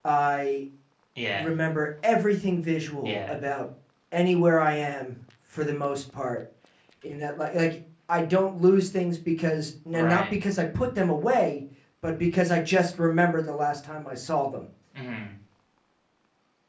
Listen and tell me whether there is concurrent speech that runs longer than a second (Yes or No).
No